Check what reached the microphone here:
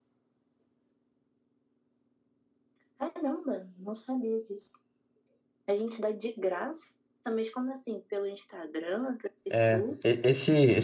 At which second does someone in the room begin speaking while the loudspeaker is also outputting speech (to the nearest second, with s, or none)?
10 s